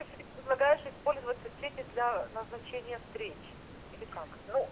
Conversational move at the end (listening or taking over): taking over